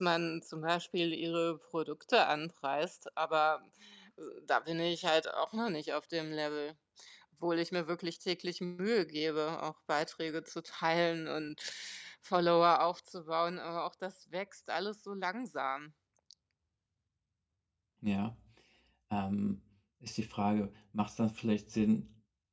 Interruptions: none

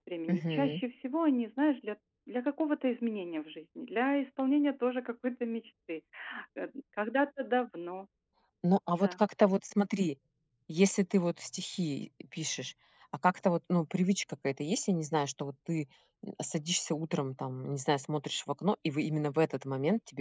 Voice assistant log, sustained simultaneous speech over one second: none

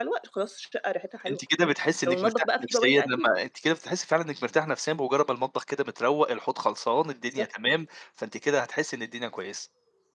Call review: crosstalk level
present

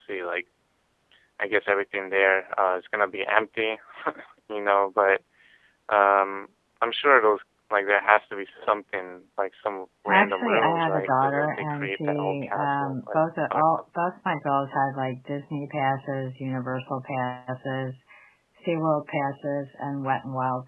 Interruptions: present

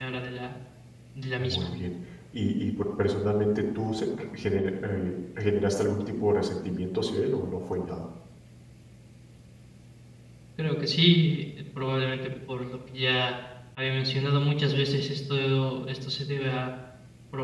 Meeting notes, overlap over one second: none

